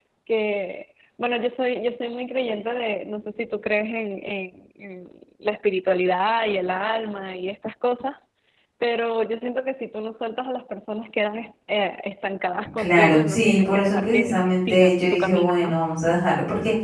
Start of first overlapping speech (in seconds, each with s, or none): 12.8 s